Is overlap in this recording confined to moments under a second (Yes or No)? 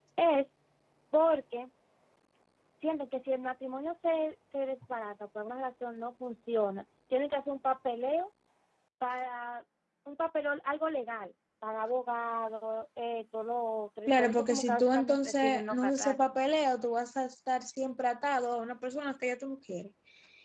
No